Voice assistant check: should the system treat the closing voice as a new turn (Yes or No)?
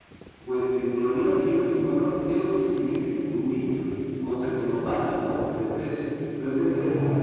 No